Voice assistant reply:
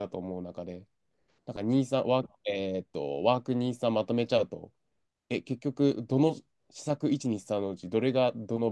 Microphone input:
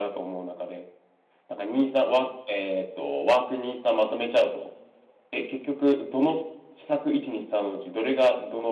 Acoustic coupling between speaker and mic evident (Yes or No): Yes